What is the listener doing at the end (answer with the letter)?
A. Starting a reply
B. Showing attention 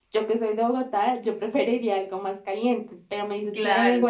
B